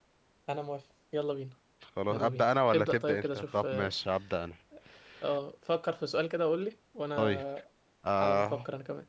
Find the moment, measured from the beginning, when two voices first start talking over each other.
2 s

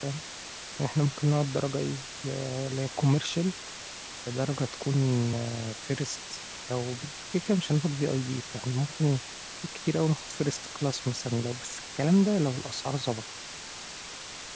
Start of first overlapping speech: none

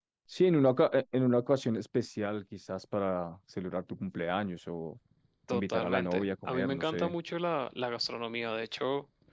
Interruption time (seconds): 6 s

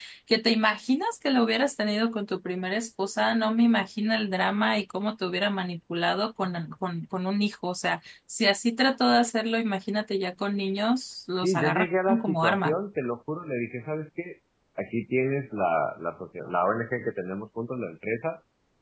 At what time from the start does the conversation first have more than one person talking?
11 s

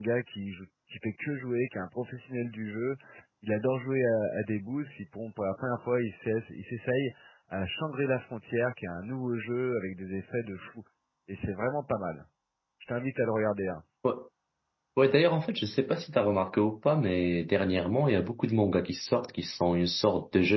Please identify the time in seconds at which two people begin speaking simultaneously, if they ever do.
none

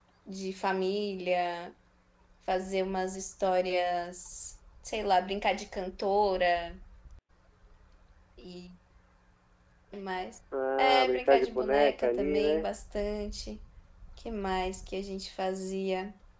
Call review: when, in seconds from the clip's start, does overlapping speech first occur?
11 s

